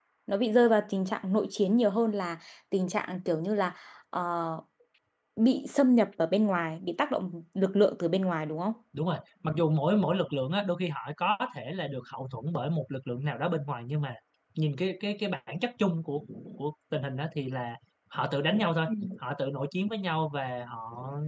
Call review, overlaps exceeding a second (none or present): none